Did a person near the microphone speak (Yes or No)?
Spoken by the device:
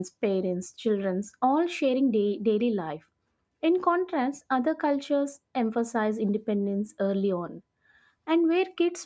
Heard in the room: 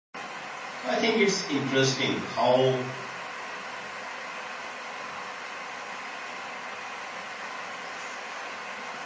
Yes